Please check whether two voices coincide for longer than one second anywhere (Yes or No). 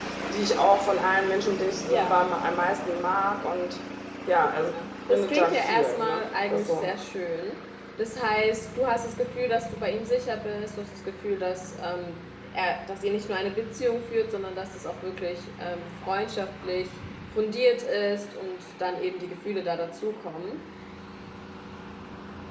Yes